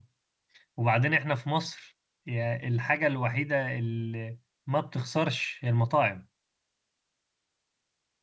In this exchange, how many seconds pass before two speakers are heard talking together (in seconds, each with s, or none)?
none